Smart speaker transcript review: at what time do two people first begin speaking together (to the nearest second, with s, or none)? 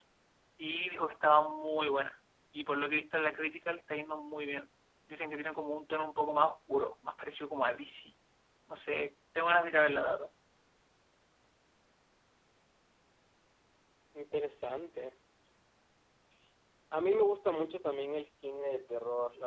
none